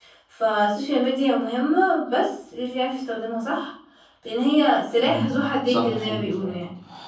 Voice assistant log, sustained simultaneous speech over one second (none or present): present